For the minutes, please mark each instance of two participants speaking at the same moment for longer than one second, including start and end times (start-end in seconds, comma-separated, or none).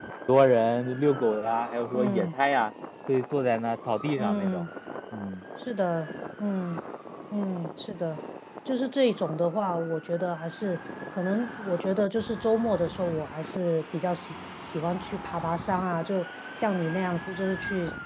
none